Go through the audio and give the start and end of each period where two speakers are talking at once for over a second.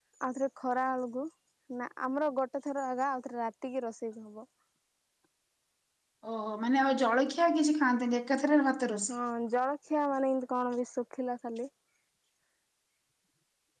none

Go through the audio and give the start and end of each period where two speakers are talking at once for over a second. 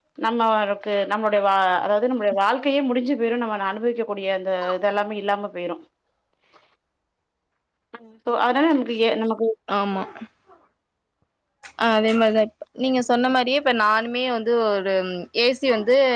none

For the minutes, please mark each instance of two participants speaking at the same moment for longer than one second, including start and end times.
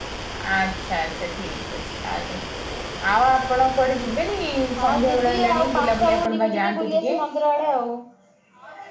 4.8-7.2

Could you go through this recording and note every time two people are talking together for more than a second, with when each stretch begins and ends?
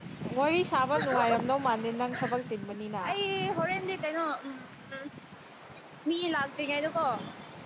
none

